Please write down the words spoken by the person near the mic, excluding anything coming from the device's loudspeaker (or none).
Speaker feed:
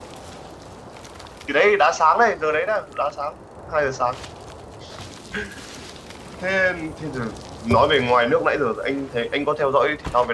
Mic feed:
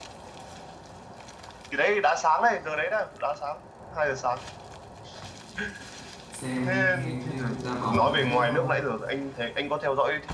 Xem thì anh chơi đá bóng với tennis thôi.